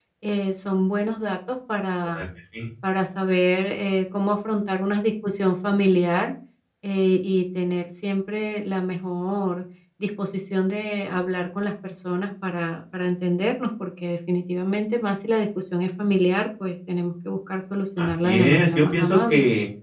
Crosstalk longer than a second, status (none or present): present